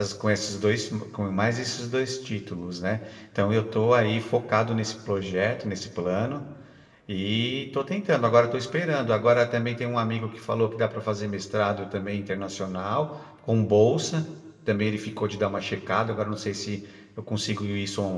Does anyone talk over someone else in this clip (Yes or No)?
No